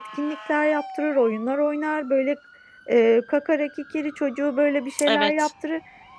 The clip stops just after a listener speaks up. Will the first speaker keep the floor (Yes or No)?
Yes